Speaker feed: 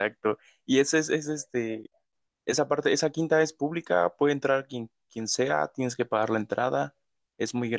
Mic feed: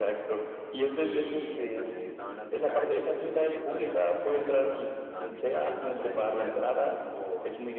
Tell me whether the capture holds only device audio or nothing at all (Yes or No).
No